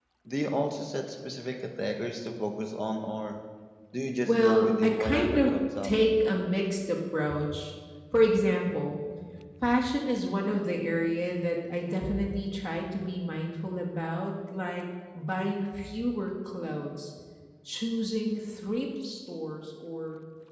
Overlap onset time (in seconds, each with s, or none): 4.2 s